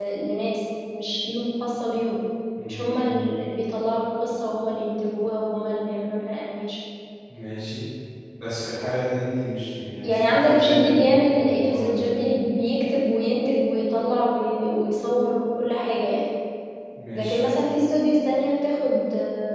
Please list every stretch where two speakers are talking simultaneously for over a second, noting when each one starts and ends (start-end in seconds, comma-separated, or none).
10.0-12.1